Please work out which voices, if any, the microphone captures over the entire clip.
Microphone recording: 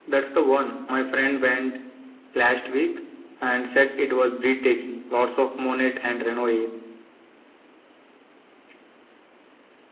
echo only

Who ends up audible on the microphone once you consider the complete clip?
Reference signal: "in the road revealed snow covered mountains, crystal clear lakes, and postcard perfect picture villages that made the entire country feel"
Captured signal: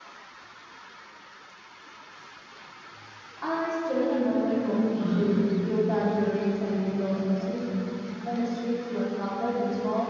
user only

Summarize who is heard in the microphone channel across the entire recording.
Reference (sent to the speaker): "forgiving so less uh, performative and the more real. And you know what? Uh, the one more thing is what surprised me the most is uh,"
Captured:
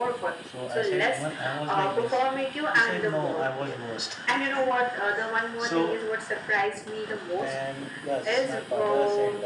both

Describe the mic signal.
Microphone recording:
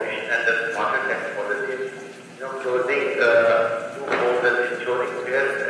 echo only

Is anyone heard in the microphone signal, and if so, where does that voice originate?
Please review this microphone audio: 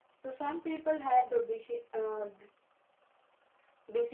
echo only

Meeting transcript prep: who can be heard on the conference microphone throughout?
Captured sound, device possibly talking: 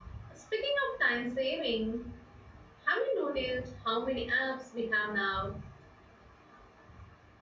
user only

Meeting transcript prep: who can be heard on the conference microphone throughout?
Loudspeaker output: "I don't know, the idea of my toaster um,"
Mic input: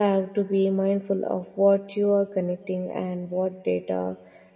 user only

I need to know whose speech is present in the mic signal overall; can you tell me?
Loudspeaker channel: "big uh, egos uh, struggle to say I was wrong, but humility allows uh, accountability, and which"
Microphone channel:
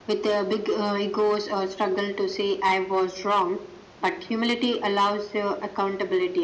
echo only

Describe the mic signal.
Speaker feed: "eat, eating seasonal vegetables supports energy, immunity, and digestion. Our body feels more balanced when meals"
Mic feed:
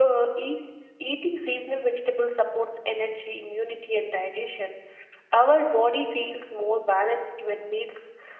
echo only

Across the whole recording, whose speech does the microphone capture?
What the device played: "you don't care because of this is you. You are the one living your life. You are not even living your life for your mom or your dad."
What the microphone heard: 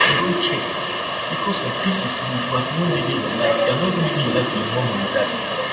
both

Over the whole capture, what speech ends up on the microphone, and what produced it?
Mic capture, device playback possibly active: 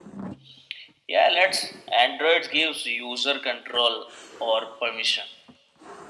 echo only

